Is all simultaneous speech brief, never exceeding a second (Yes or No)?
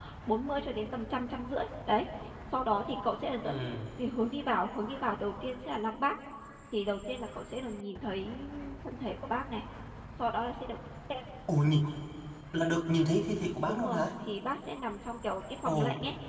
Yes